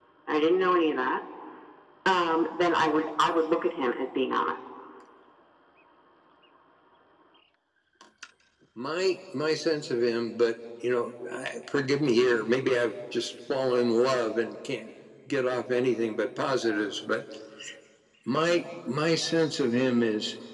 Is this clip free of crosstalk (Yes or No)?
Yes